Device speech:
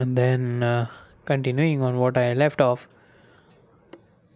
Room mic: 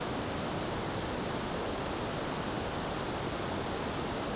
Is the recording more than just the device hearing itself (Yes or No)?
No